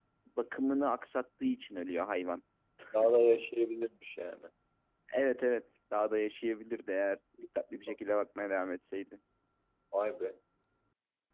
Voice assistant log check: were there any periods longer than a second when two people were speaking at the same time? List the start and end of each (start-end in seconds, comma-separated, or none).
none